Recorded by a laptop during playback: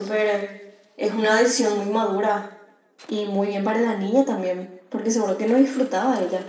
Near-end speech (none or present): none